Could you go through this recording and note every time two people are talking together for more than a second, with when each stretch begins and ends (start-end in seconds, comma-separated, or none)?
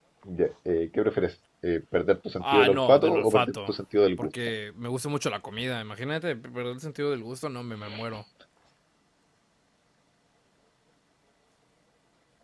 2.4-3.7